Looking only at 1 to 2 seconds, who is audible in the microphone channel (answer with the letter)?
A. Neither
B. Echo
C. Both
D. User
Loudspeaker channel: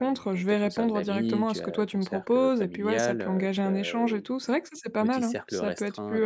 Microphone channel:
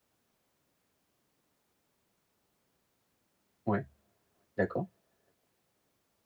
A